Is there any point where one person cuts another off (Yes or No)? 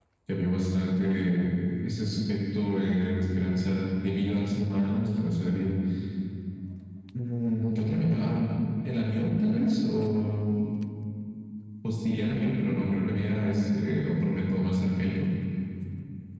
No